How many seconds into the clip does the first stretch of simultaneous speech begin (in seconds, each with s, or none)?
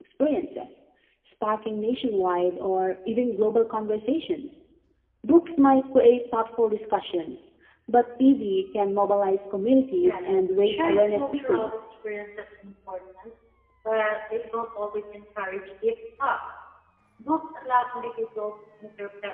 9.9 s